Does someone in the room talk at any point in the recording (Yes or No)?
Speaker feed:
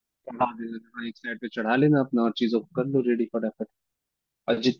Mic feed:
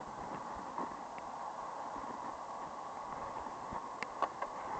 No